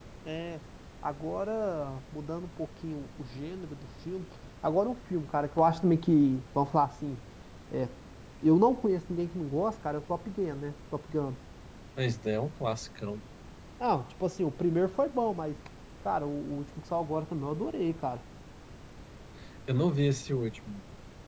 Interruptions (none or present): none